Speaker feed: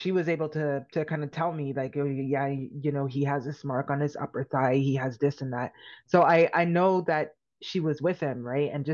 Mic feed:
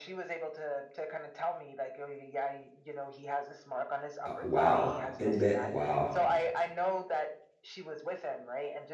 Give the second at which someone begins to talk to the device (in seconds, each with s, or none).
4.2 s